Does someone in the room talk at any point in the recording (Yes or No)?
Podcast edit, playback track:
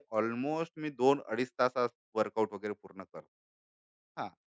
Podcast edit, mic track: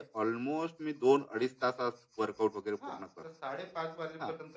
Yes